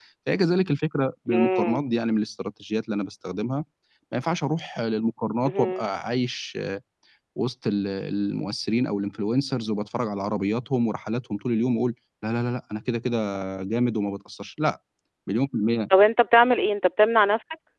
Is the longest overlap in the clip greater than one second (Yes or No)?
No